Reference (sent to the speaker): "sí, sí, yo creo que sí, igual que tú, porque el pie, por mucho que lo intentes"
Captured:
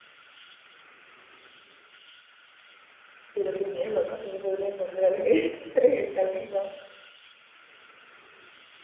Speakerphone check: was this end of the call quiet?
No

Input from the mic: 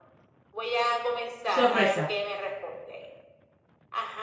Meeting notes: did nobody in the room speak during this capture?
No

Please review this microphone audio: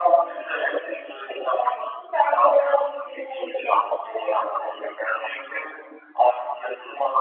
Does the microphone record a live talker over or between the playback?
No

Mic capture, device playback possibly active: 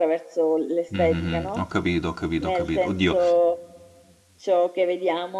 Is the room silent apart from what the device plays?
No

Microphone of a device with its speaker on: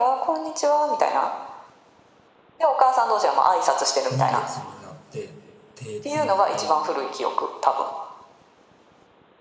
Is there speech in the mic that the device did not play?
Yes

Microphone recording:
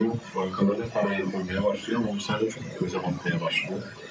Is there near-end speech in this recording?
No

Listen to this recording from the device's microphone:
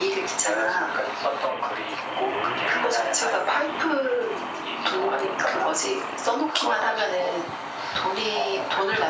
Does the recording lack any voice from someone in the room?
Yes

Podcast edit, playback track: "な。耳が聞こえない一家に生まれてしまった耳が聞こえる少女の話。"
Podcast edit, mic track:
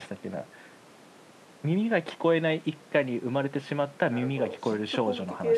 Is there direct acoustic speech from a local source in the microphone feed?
Yes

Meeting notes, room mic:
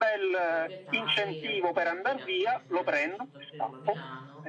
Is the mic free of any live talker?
No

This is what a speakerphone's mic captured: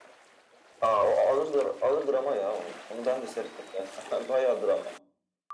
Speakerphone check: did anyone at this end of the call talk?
No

